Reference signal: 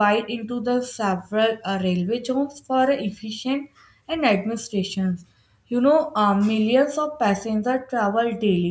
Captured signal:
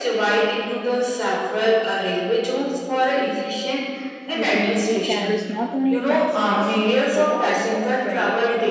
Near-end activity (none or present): present